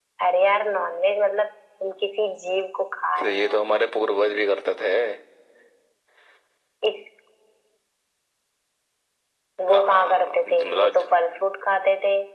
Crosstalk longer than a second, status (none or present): present